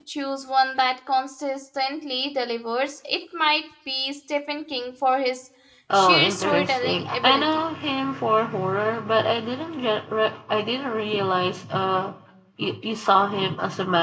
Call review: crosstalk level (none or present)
present